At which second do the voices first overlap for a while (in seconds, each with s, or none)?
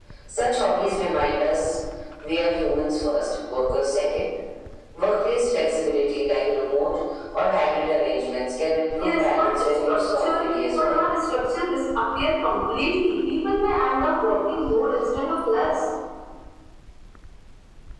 9.0 s